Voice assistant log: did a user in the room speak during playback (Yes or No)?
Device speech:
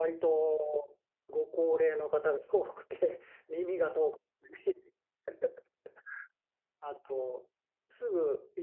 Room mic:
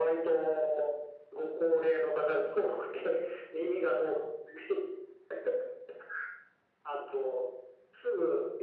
No